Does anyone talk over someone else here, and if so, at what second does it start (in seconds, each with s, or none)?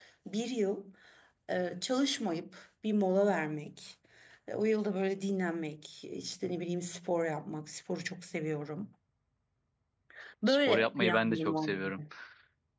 10.5 s